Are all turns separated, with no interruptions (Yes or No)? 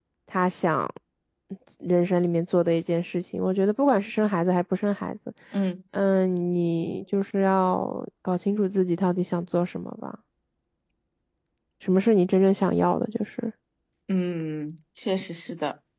Yes